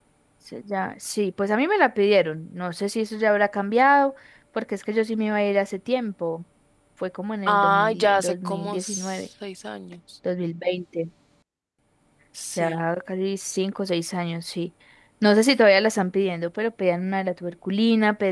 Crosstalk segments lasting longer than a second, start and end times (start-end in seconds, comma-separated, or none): 7.5-9.2